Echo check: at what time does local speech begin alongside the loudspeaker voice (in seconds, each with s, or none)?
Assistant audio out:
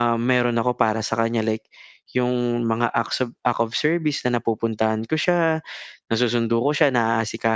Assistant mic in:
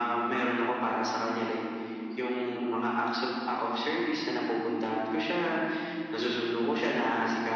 none